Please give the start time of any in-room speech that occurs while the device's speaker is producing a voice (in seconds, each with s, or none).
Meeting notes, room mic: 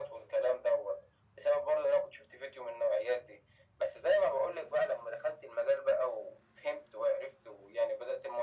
none